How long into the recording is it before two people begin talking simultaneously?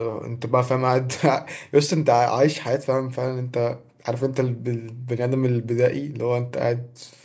none

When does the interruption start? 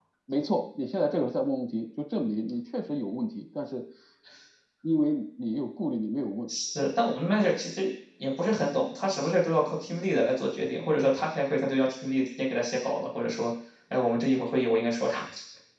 none

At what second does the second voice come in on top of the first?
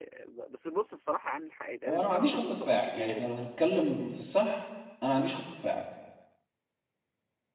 1.9 s

